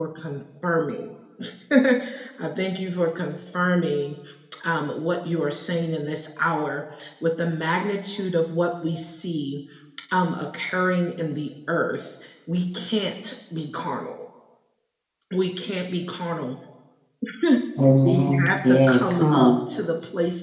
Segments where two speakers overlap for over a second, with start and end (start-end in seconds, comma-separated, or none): 18.0-19.6